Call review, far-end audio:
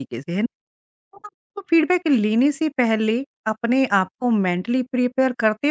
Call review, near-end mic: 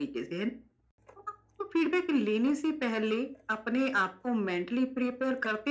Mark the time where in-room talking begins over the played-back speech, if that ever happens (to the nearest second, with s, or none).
none